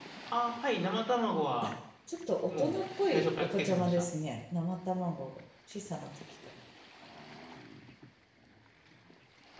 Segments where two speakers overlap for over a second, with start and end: 2.5-4.1

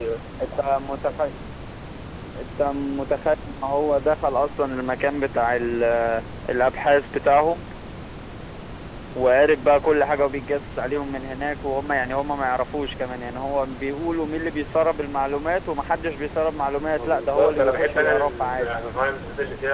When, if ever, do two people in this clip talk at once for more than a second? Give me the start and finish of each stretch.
17.0-18.7

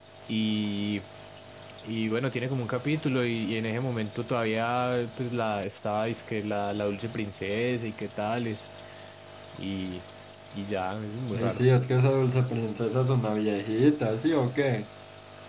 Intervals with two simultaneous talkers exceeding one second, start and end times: none

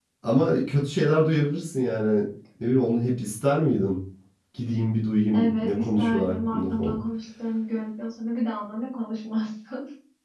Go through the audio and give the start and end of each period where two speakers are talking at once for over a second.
5.3-7.0

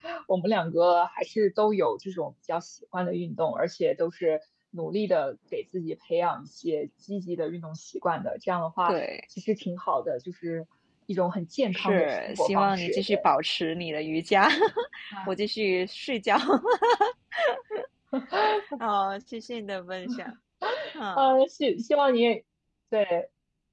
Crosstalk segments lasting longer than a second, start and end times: 11.7-13.2

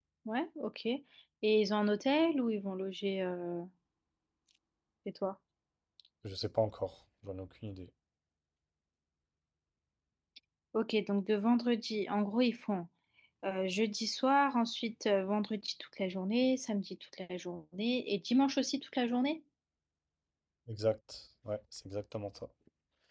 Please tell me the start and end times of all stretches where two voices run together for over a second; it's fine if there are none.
none

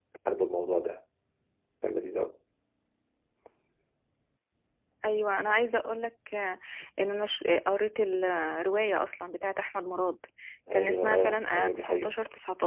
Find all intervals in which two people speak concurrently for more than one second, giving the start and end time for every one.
10.7-12.1

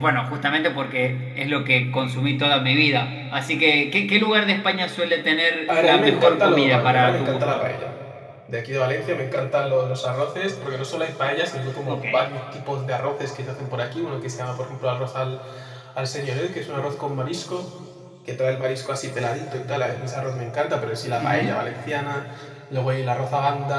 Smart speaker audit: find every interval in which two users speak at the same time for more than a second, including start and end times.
5.7-7.7

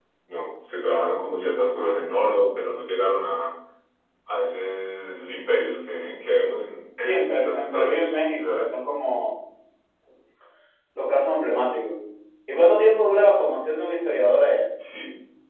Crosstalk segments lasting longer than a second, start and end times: 7.0-8.8

